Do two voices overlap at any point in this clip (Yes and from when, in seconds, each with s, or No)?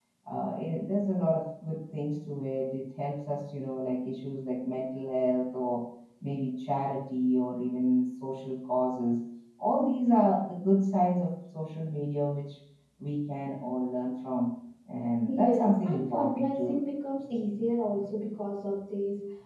Yes, from 15.3 s